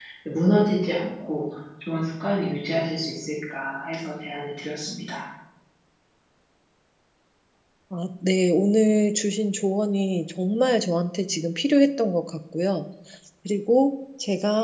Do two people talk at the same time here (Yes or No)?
No